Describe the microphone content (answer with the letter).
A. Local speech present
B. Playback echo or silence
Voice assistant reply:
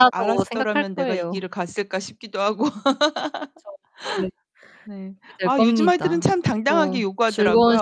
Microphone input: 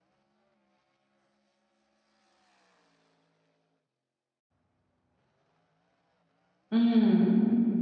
A